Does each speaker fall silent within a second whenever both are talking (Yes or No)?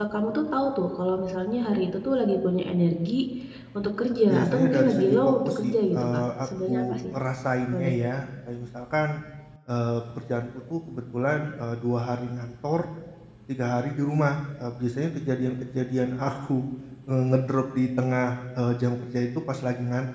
No